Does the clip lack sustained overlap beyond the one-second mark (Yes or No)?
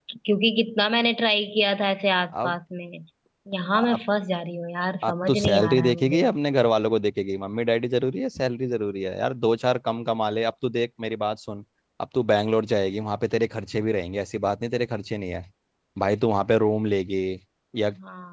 No